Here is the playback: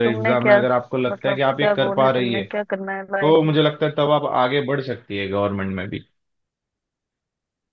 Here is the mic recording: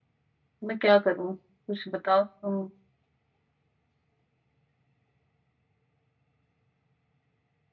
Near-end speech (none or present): present